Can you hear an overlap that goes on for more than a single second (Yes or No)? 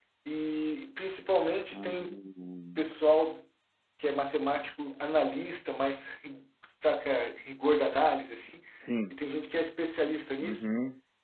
No